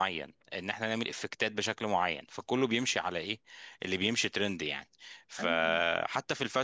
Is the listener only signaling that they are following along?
Yes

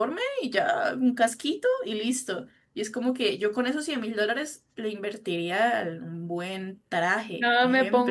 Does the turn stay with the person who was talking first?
No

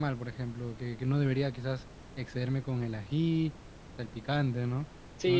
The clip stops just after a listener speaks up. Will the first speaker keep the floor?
No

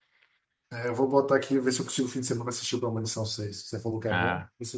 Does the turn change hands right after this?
Yes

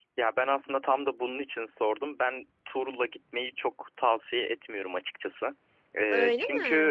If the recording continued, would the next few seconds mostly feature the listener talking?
No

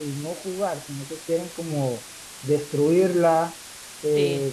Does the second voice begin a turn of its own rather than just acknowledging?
No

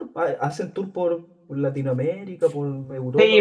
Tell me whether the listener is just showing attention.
No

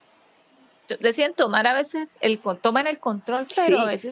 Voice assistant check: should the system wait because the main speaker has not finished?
Yes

